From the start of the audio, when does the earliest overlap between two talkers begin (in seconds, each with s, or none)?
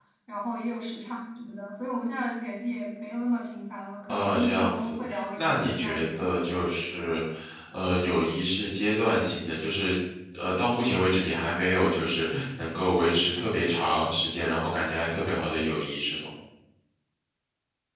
4.1 s